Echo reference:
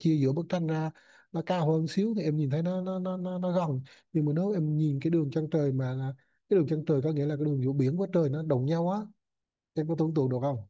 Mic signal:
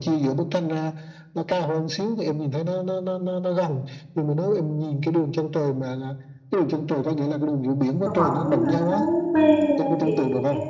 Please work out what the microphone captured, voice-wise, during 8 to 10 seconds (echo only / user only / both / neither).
both